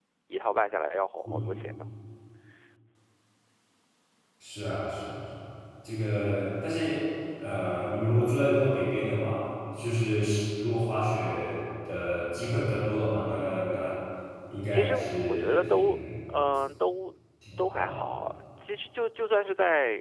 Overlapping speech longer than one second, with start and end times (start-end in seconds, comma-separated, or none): 14.7-16.0